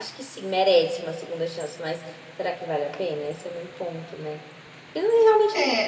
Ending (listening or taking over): taking over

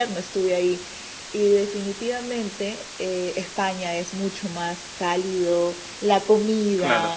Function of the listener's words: listening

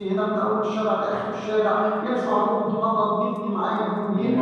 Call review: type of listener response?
taking over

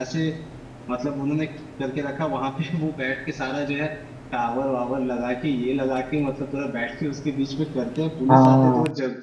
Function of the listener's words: listening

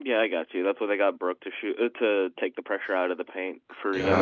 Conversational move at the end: taking over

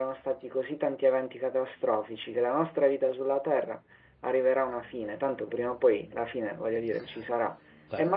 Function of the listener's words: listening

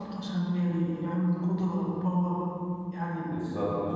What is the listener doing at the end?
taking over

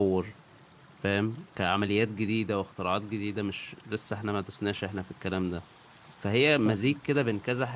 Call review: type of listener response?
listening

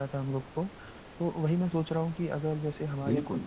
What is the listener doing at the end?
listening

